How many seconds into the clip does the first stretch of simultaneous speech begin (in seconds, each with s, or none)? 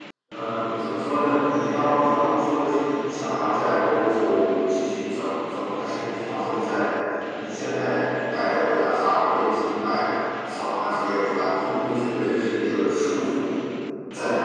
none